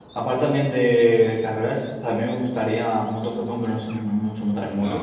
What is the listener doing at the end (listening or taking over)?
taking over